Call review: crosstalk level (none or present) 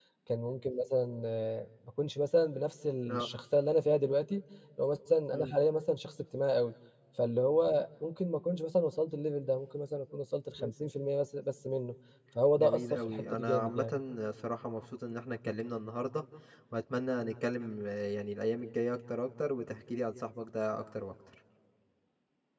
present